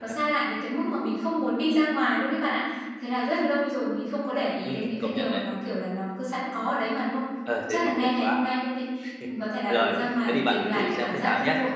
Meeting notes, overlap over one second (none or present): present